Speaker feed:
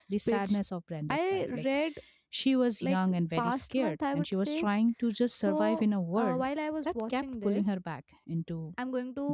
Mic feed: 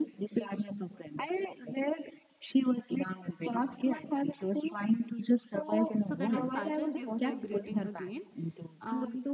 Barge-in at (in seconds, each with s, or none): 6.0 s